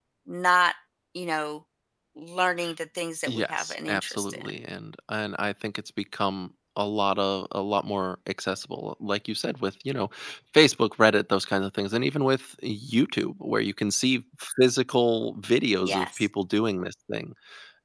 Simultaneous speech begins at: 3 s

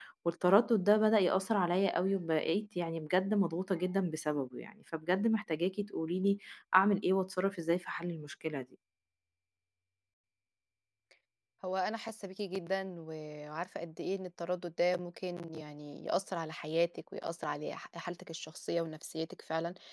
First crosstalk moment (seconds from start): none

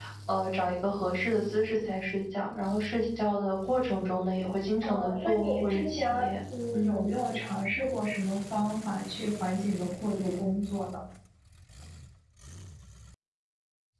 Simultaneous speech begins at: 5 s

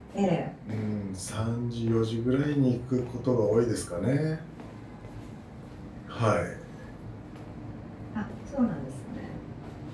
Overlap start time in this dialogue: none

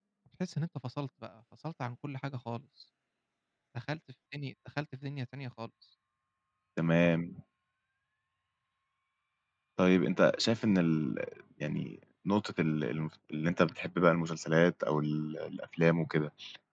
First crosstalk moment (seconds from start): none

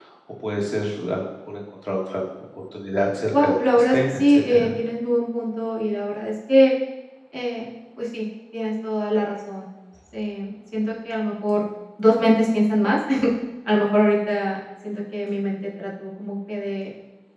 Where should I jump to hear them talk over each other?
3 s

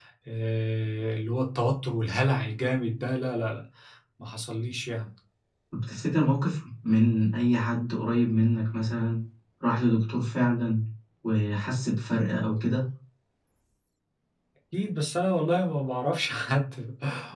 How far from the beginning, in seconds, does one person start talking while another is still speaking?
none

